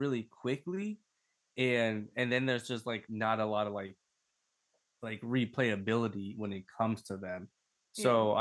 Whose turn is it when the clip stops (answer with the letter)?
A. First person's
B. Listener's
A